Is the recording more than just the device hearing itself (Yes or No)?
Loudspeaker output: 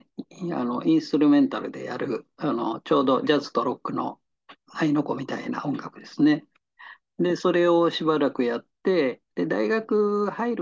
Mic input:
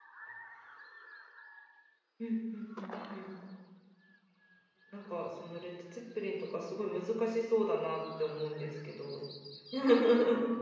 Yes